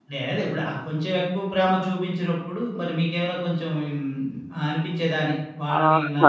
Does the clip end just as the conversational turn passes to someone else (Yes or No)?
Yes